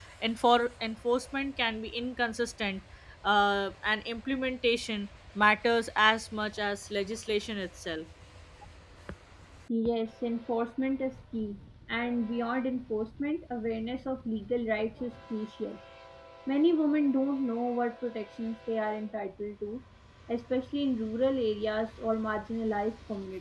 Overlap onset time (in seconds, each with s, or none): none